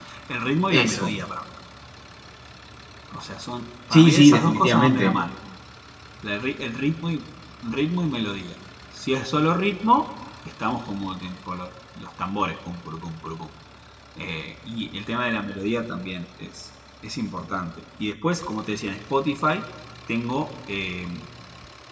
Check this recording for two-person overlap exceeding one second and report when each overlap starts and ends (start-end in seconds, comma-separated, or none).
3.9-5.1